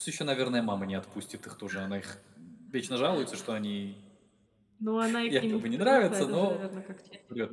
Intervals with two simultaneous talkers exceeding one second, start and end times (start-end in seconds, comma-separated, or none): 5.3-6.6